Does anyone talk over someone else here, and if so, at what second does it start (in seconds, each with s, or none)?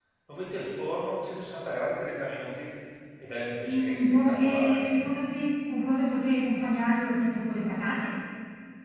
3.6 s